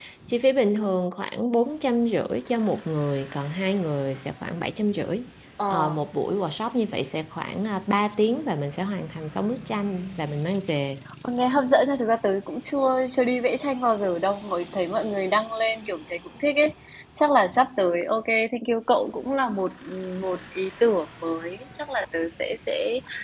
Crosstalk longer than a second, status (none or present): none